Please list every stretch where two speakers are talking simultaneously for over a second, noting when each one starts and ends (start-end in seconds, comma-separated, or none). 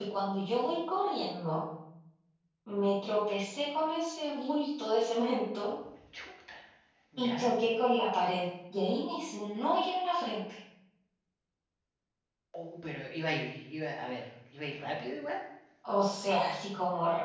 none